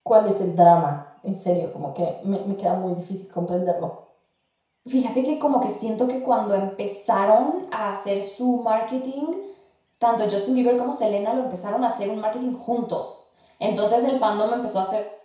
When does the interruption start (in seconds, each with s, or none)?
none